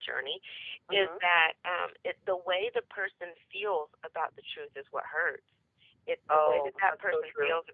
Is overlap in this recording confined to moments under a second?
No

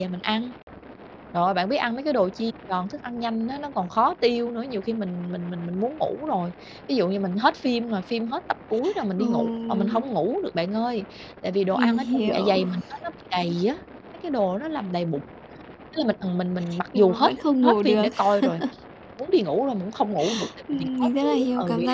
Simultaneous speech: Yes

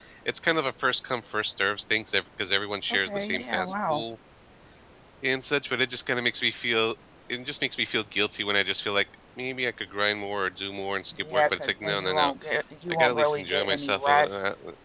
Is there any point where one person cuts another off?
Yes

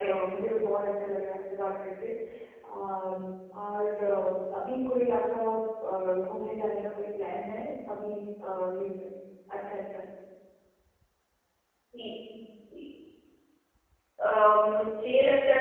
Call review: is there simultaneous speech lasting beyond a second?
No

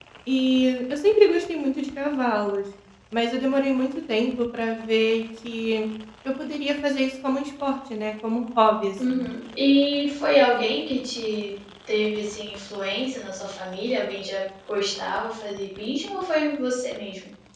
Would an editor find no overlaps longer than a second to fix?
Yes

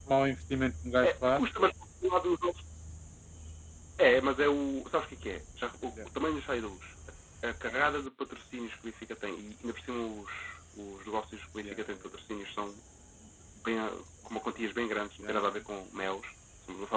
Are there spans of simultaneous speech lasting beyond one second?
No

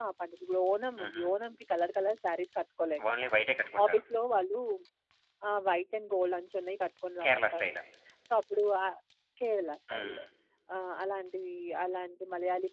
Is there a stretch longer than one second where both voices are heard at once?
No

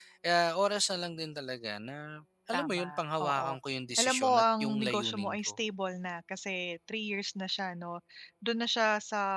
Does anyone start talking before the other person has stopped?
Yes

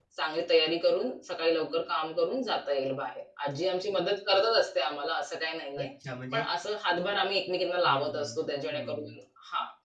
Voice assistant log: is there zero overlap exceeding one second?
Yes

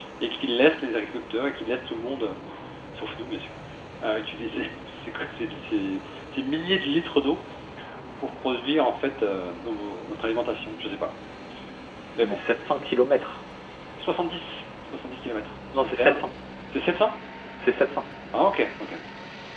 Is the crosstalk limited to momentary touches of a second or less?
Yes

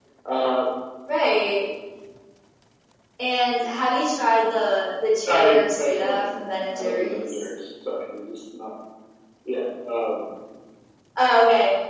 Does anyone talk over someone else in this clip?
Yes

